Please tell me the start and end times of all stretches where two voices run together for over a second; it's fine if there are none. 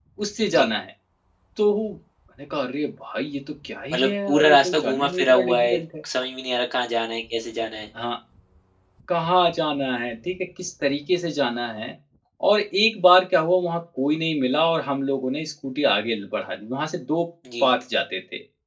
3.9-5.8

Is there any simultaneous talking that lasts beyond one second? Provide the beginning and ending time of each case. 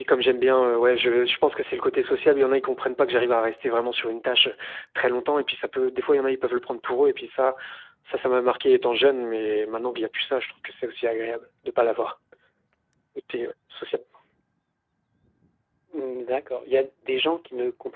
none

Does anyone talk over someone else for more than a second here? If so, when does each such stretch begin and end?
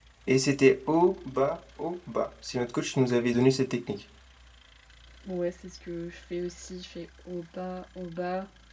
none

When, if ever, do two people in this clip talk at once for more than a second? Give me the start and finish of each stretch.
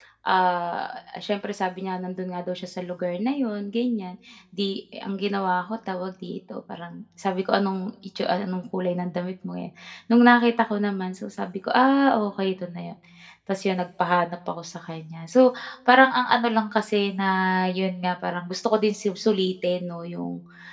none

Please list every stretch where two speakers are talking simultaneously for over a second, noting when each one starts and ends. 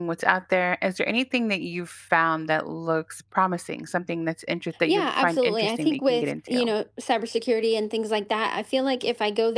4.9-6.6

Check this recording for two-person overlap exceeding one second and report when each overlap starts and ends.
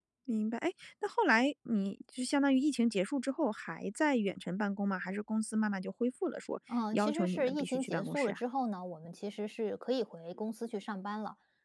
6.9-8.4

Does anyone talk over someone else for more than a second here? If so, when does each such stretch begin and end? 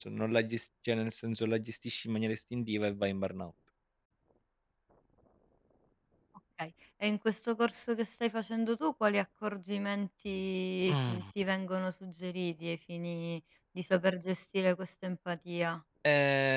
none

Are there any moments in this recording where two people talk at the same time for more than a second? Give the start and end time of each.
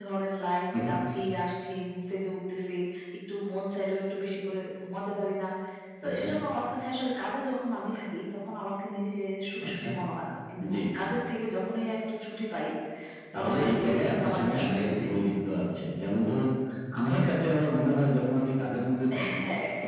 13.3-15.1

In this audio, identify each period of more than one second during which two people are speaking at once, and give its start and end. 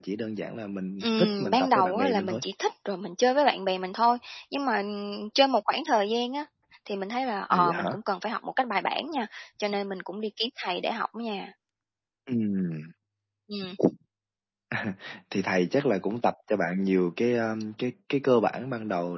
1.0-2.4

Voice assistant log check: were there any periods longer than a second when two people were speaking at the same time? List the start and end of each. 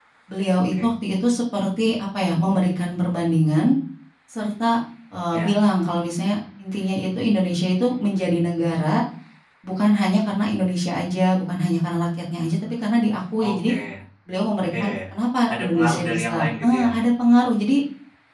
15.6-16.9

